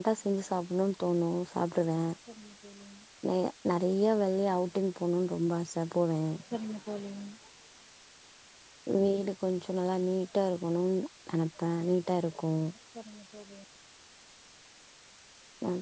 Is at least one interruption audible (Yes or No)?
No